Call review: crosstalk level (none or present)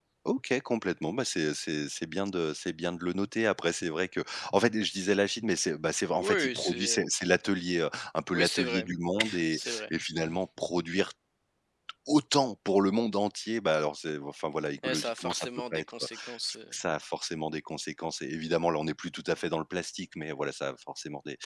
present